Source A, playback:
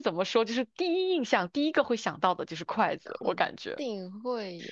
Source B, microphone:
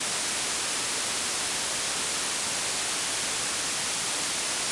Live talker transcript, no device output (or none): none